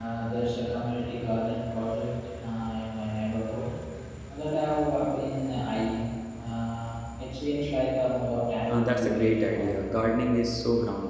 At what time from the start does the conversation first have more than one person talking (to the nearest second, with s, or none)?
9 s